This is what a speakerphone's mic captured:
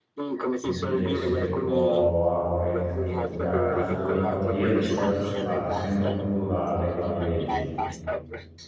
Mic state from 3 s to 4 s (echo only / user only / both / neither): both